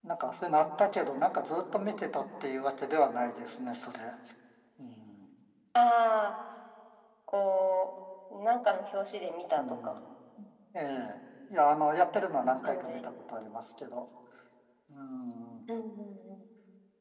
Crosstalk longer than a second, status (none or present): none